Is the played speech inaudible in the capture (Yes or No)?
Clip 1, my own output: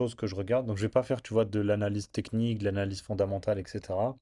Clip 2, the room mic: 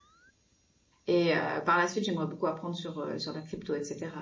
Yes